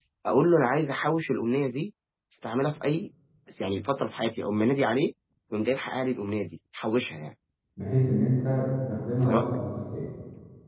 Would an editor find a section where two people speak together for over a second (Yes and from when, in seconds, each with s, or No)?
No